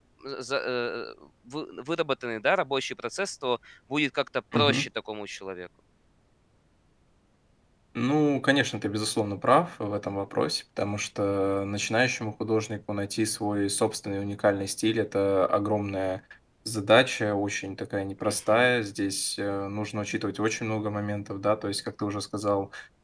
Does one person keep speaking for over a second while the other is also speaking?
No

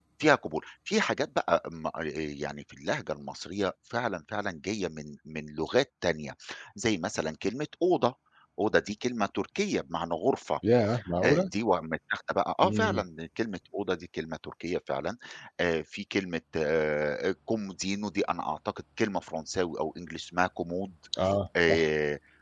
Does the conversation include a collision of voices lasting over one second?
No

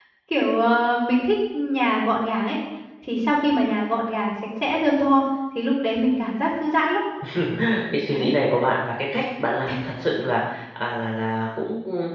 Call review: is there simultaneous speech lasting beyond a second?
No

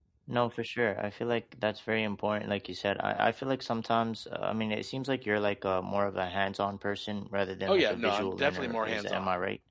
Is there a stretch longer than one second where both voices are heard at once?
Yes, from 7.6 s

